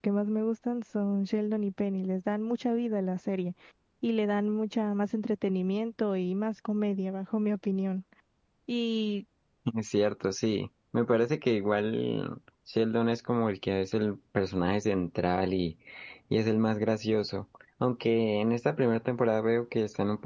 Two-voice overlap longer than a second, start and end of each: none

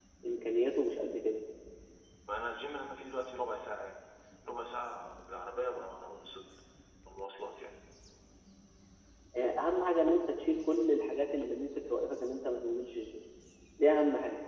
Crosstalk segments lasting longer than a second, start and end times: none

